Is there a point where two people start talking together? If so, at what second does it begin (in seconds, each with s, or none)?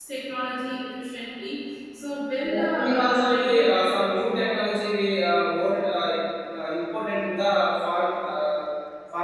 2.4 s